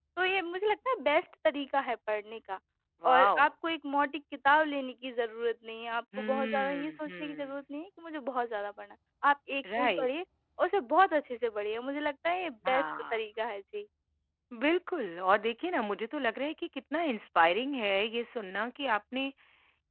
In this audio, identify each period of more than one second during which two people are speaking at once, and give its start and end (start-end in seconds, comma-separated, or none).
6.2-7.6